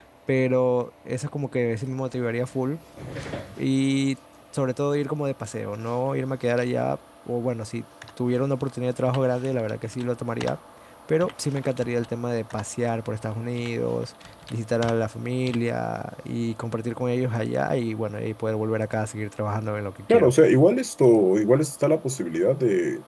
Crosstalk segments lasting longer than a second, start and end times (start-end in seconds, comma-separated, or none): none